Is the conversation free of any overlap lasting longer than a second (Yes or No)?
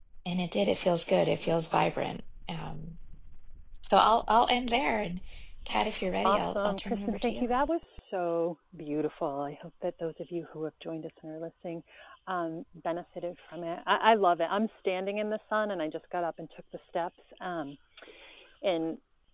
No